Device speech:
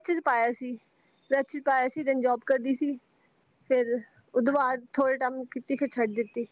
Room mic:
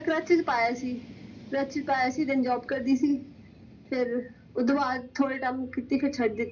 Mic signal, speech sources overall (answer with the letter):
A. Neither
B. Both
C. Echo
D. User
C